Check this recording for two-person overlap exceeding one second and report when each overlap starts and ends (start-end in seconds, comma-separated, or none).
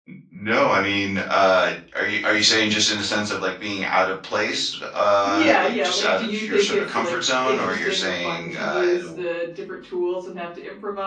5.2-9.2